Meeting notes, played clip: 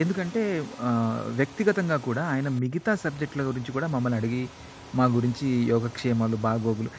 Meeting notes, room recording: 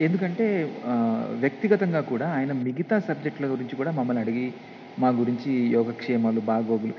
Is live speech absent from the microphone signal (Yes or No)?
Yes